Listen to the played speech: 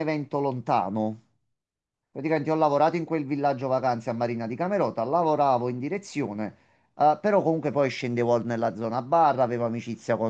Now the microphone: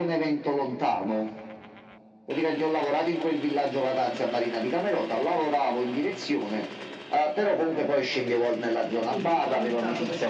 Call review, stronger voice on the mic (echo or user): echo